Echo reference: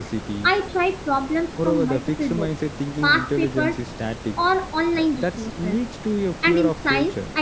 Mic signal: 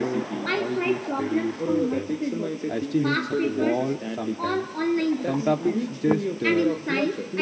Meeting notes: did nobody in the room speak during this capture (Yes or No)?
No